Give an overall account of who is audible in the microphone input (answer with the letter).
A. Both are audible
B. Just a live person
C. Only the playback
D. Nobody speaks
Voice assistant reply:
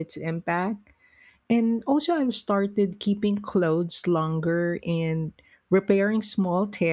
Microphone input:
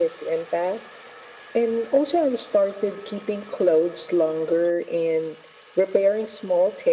C